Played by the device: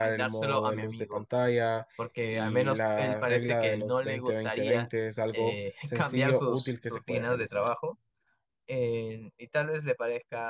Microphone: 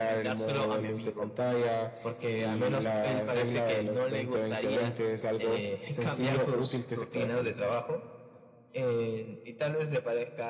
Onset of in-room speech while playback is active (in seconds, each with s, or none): none